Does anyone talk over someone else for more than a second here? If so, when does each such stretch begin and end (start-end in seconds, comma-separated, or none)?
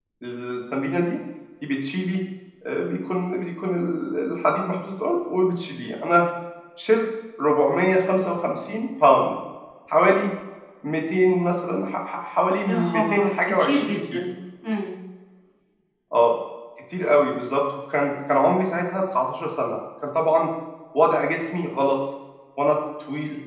12.7-14.3